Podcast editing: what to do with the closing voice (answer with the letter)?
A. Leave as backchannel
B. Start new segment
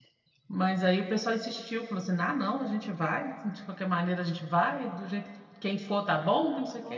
B